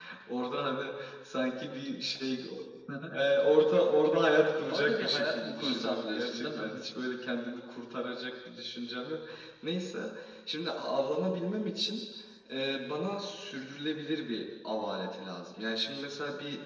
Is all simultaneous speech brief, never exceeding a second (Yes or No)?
No